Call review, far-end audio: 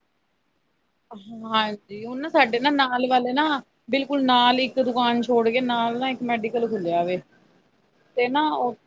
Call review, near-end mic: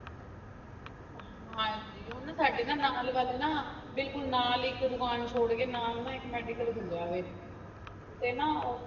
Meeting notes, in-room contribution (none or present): none